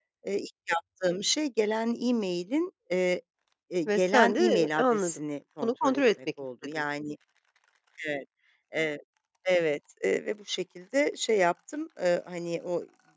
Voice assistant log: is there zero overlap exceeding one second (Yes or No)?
No